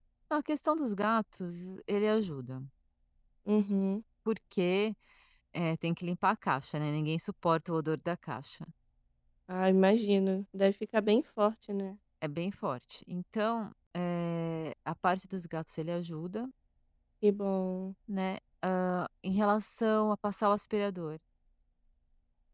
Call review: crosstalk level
none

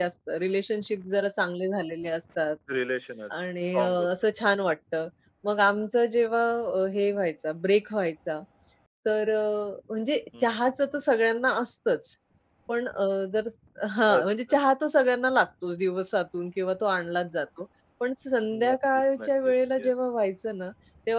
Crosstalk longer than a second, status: present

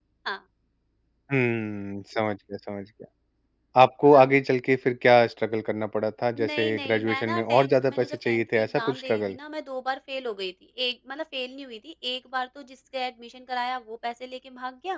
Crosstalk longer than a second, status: present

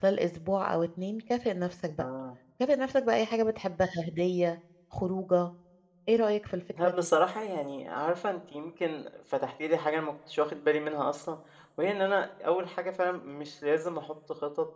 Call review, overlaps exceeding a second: none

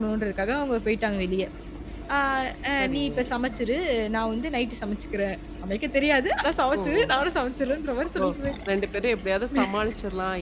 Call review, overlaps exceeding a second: none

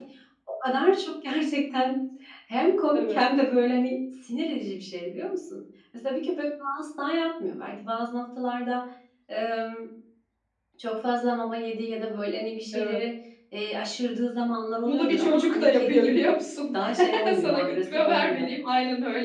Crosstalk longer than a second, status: present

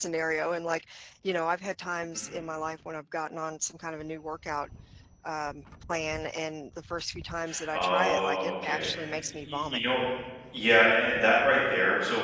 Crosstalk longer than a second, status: present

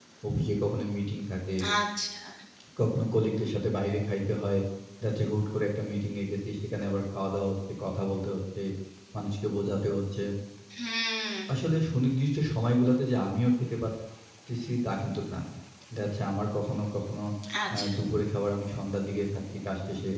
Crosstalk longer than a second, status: none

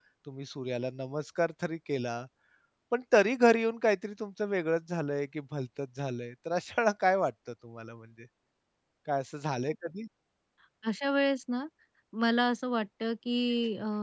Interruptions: none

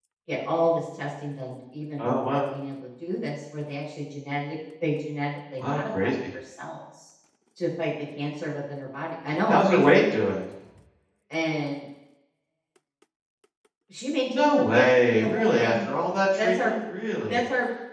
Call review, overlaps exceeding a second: present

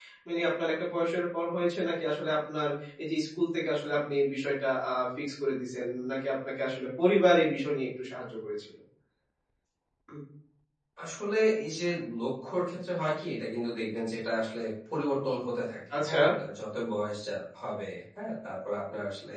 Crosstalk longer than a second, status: none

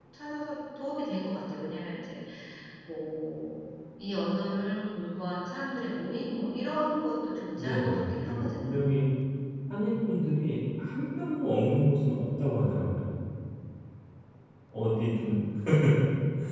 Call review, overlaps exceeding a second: present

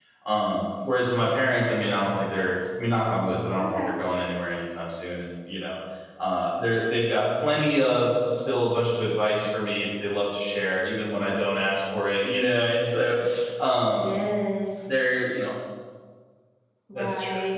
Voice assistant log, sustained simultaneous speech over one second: none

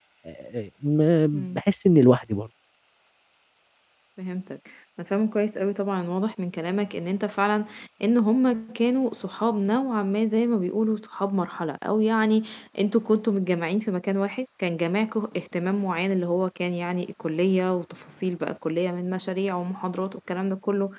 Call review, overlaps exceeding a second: none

